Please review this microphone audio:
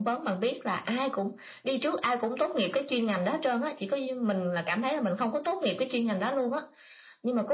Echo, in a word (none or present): present